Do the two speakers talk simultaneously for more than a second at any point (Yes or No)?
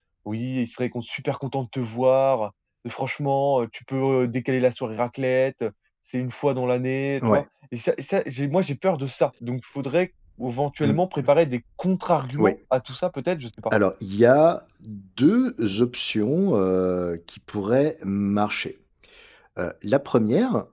No